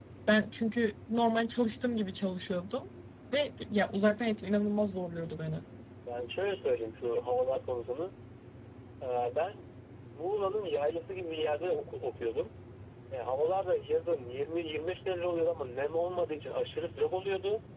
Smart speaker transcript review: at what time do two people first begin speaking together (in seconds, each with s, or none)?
none